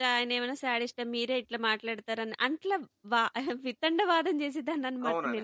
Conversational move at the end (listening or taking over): taking over